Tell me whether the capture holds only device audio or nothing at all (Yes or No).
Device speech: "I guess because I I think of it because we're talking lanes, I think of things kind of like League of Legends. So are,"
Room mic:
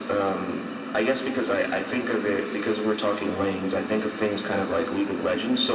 Yes